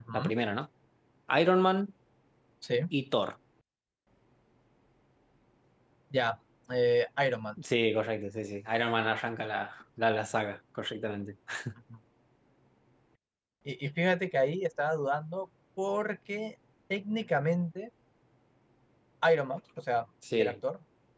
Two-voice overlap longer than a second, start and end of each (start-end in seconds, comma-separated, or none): none